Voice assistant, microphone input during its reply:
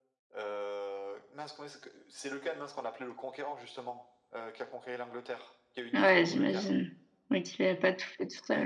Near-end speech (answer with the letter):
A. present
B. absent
A